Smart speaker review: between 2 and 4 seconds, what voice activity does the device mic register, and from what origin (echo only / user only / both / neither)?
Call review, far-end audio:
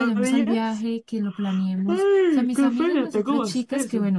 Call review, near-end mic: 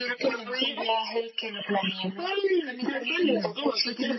both